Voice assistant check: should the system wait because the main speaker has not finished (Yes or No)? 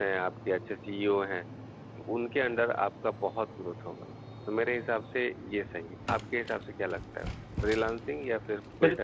No